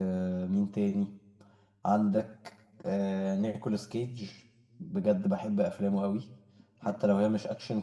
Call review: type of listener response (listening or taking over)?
listening